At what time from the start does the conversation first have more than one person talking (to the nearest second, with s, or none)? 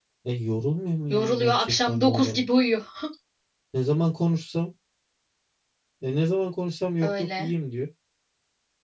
1 s